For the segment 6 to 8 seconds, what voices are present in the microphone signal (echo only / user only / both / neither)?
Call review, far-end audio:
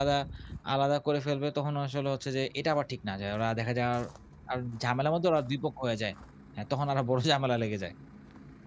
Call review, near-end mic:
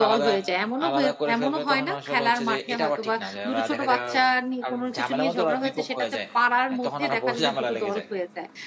both